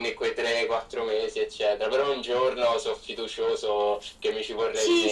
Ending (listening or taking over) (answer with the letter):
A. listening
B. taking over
B